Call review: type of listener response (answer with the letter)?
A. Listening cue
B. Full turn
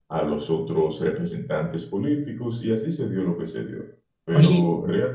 A